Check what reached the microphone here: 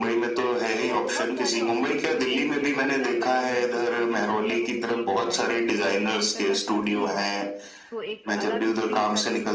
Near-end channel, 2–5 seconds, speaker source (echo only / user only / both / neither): both